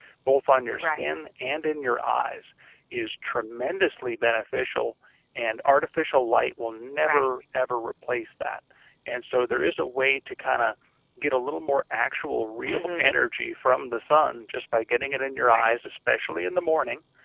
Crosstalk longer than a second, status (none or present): none